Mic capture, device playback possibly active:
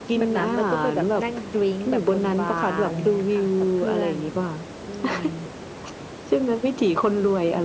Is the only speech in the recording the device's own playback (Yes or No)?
Yes